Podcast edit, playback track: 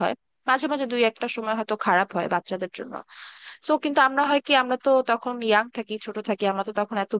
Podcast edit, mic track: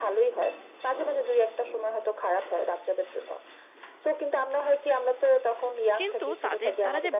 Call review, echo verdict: present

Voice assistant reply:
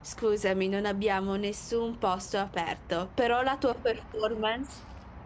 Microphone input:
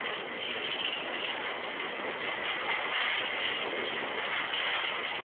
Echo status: none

